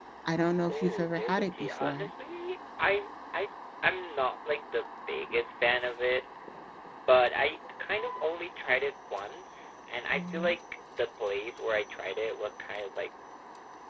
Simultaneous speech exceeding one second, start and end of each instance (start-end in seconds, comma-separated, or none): 0.7-2.1